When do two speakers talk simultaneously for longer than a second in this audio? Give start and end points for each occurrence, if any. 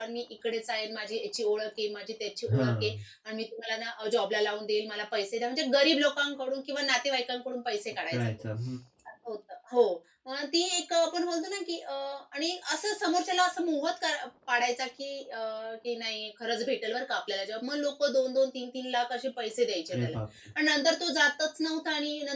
none

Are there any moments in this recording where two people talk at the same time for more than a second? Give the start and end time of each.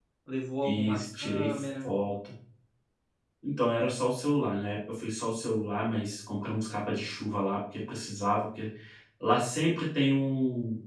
0.6-1.9

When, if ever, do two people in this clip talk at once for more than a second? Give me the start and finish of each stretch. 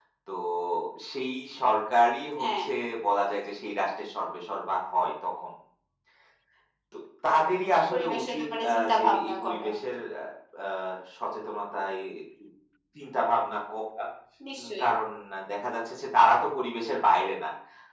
7.9-9.7

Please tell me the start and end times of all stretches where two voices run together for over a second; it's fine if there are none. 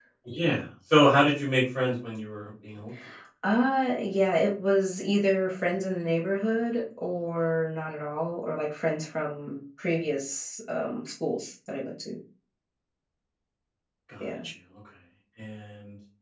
none

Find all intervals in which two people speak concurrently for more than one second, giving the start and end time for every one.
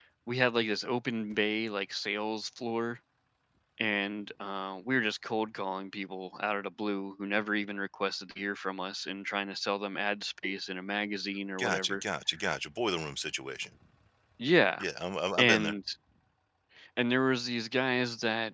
none

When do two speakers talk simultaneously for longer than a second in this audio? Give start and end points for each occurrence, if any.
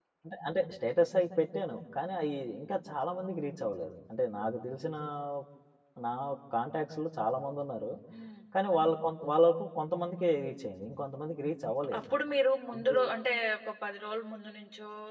none

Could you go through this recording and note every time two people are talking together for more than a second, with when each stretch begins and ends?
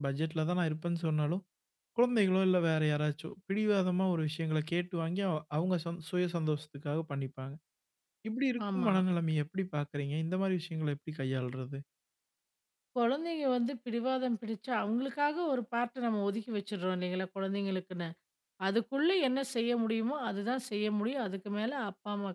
none

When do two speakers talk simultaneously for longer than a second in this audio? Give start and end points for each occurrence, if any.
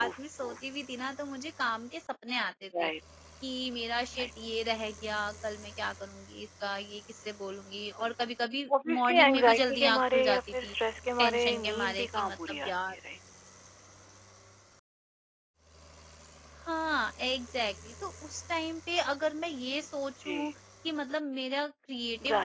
8.9-10.7, 11.2-13.0

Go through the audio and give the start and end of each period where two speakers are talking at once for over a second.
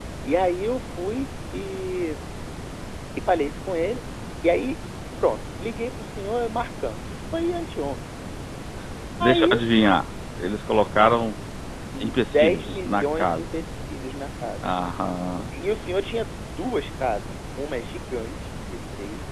12.0-13.4

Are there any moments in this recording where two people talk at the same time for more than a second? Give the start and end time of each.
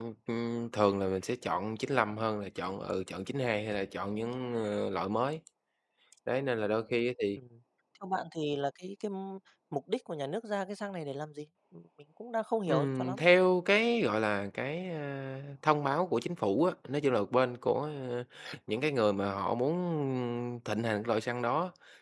none

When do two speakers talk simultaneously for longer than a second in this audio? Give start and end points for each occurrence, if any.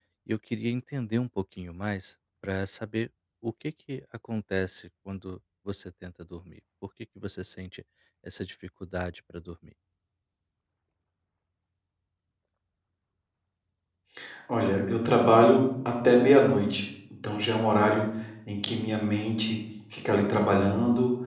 none

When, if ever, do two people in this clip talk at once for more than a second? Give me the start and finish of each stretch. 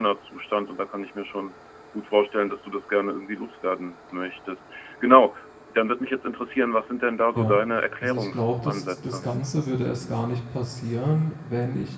8.0-9.3

